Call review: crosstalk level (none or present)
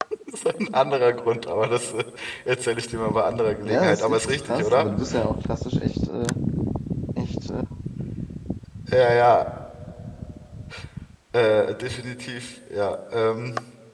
present